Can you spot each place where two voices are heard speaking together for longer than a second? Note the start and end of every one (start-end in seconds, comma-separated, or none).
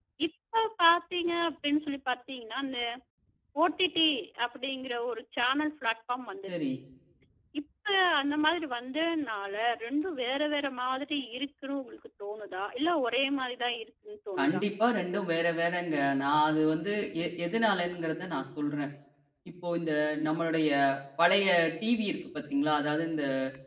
none